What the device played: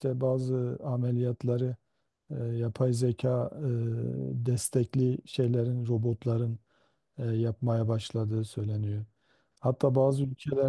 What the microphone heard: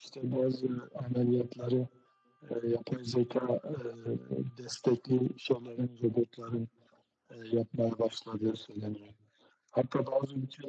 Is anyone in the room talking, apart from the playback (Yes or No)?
No